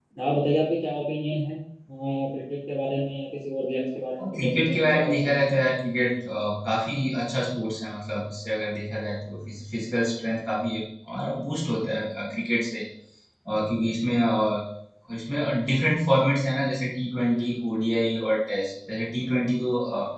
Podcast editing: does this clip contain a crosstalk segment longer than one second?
Yes, from 4.2 s

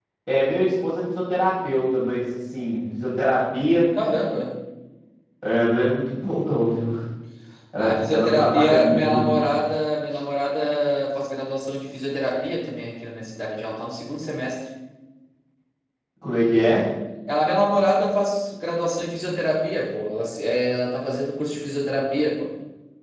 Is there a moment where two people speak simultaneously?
Yes, from 7.8 s

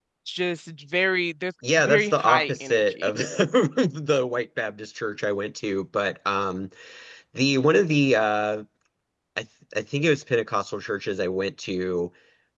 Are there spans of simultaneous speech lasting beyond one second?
Yes, from 1.6 s

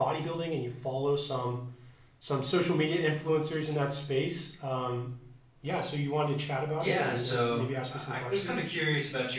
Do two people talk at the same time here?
Yes, from 6.8 s

